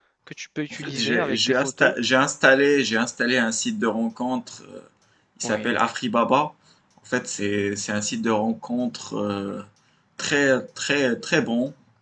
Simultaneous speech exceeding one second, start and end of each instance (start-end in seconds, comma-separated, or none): 0.7-1.9